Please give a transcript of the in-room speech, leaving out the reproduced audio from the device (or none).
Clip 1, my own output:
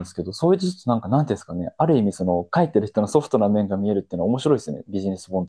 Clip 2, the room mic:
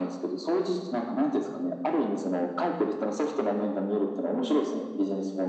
none